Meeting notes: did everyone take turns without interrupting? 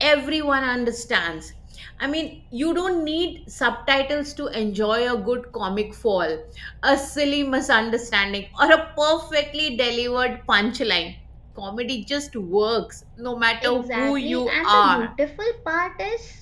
No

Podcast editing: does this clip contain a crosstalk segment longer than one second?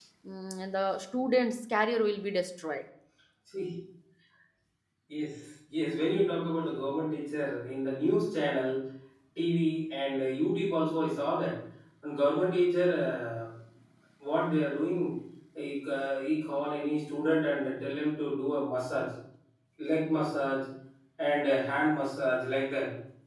No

